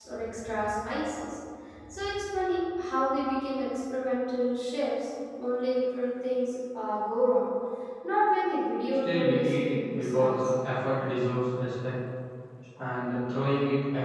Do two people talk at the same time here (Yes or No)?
Yes